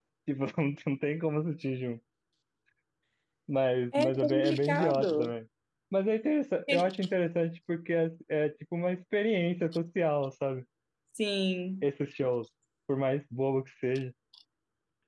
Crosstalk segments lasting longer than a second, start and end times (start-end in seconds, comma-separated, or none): 3.9-5.3